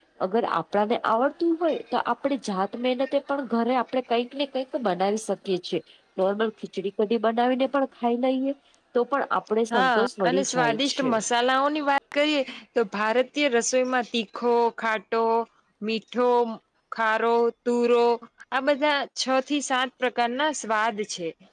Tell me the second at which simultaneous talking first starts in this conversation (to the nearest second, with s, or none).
10 s